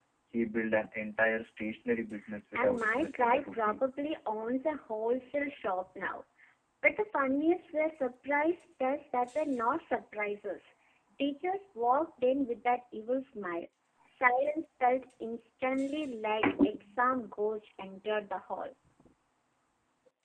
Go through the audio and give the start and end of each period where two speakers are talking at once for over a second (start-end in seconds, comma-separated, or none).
2.5-3.8